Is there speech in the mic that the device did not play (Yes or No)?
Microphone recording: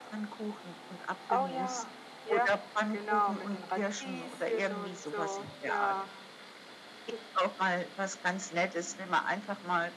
Yes